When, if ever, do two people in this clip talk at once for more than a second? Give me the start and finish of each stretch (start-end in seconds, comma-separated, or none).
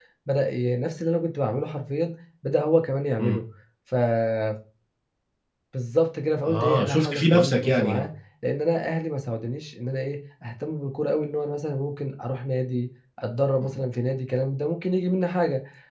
6.4-8.1